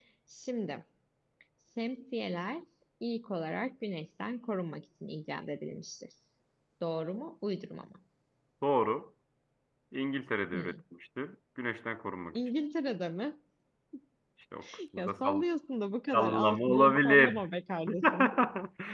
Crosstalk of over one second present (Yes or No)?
Yes